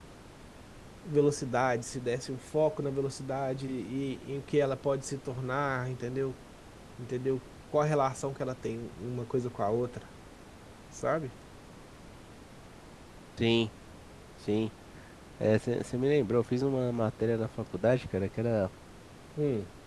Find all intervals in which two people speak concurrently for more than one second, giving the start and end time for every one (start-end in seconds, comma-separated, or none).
none